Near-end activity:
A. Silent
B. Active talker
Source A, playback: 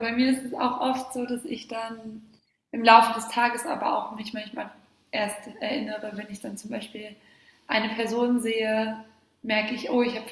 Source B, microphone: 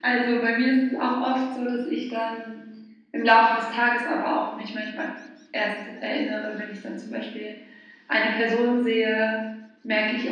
A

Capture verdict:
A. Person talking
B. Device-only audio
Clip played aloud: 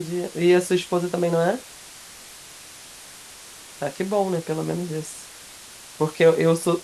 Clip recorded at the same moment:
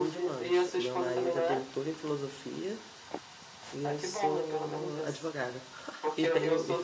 A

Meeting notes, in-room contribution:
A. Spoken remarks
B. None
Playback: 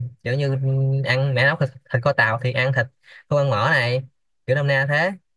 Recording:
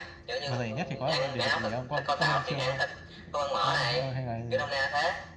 A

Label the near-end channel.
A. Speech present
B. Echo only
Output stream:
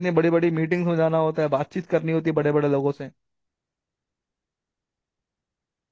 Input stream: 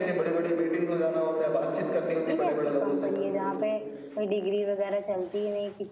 A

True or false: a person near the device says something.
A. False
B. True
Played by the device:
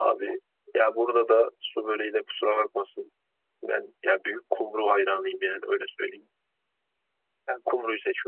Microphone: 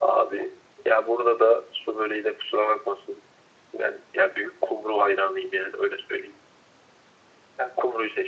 A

